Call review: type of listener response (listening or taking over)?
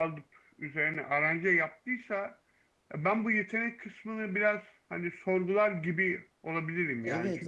taking over